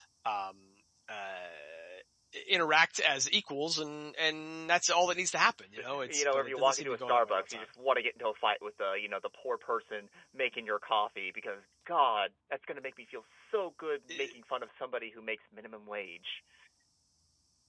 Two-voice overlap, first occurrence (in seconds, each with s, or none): 6.1 s